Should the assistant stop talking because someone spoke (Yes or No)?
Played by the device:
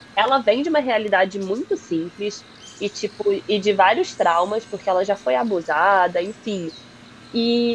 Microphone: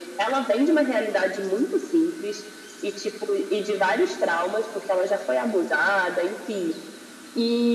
No